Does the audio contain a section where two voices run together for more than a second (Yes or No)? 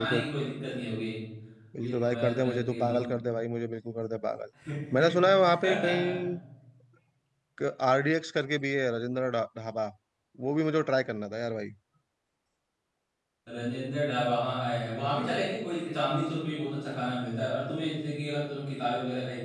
Yes